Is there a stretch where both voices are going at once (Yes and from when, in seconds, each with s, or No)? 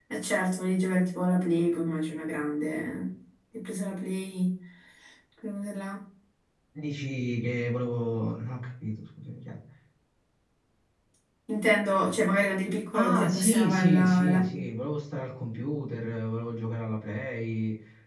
Yes, from 12.9 s